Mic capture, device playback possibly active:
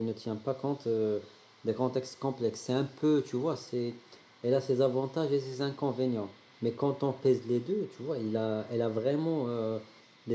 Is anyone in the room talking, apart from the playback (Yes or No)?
Yes